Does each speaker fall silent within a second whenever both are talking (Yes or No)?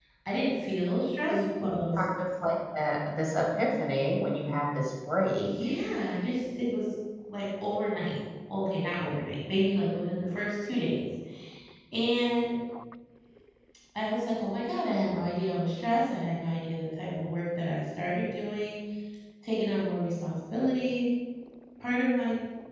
Yes